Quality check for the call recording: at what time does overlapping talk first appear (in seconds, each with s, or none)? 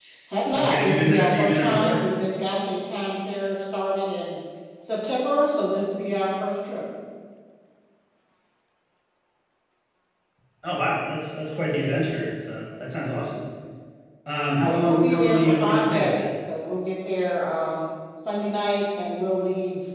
0.5 s